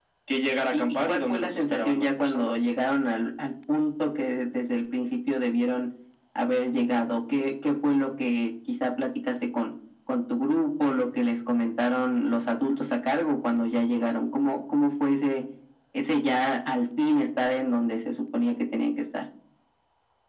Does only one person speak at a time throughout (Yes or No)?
No